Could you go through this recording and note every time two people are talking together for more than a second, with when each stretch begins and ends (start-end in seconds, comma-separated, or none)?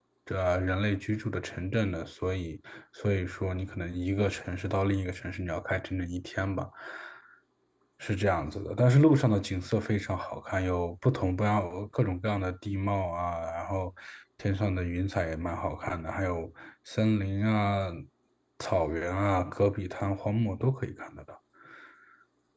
none